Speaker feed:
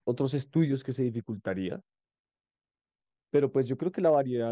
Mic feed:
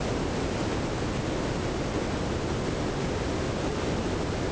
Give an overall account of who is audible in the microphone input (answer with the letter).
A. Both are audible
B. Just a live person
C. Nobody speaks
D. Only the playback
C